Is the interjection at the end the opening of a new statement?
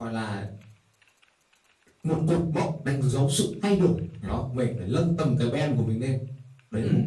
Yes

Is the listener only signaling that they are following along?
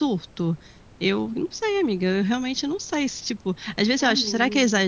Yes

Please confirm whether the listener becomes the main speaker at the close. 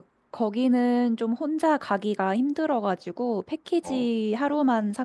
No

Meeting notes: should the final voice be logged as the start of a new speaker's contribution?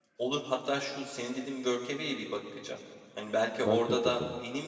No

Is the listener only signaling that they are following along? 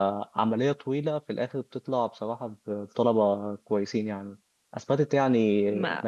Yes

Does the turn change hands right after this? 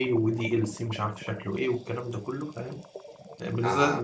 Yes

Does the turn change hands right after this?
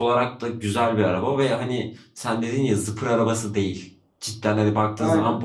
No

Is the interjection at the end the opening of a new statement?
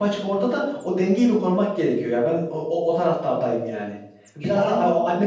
No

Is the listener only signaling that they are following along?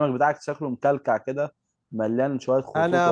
No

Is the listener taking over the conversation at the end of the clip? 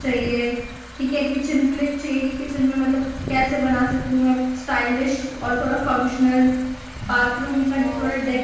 No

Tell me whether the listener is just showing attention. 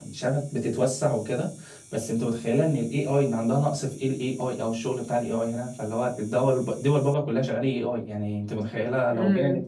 Yes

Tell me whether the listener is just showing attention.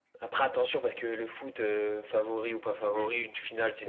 No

